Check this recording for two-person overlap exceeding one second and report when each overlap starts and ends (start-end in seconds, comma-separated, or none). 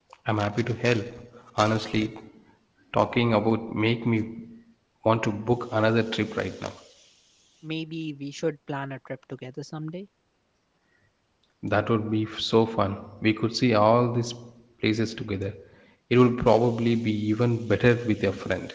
none